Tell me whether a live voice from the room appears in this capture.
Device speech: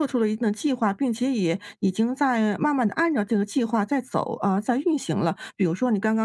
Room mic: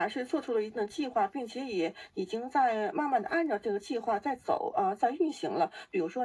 No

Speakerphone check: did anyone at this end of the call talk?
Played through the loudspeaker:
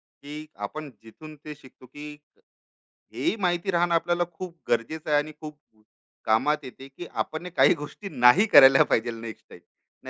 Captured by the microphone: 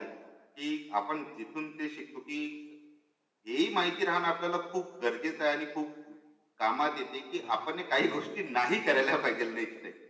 Yes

